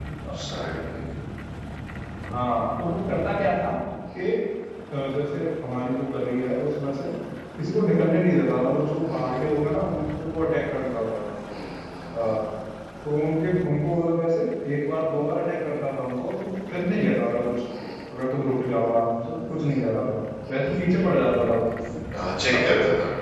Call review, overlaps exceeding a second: none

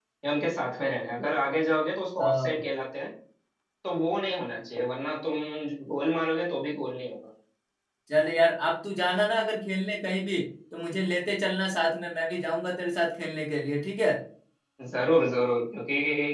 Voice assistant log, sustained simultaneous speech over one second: none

